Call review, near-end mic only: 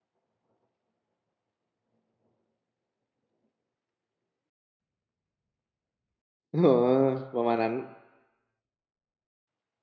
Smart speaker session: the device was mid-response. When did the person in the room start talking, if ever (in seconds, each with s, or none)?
6.5 s